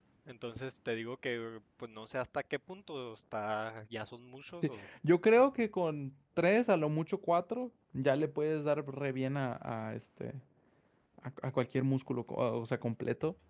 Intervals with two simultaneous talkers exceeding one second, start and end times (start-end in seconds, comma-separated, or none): none